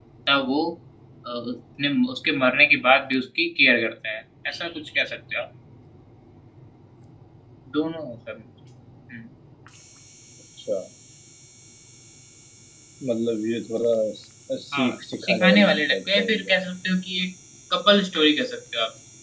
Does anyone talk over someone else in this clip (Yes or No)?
Yes